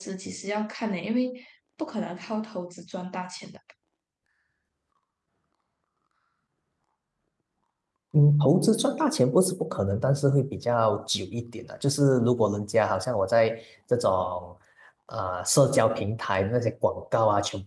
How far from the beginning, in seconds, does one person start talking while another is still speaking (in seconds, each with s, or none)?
none